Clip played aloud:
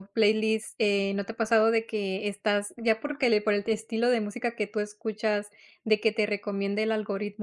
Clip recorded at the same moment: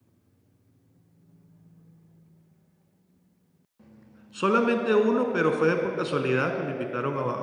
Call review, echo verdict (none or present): none